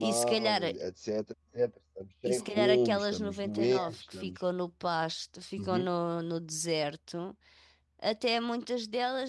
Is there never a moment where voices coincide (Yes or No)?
No